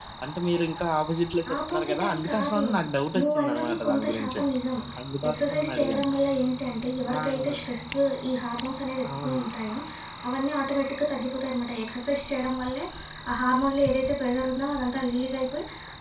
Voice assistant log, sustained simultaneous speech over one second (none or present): present